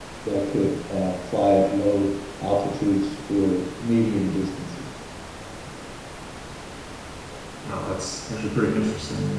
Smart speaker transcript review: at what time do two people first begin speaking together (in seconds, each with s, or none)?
none